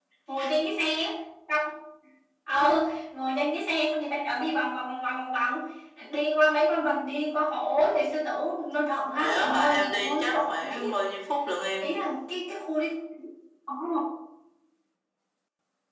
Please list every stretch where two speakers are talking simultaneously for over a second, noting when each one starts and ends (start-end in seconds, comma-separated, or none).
9.2-10.8